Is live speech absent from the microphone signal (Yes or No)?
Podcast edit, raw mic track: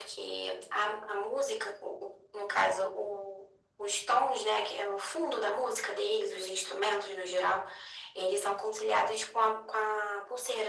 Yes